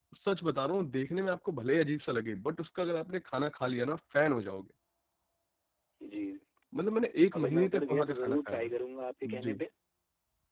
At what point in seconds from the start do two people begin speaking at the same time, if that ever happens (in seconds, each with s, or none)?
7.4 s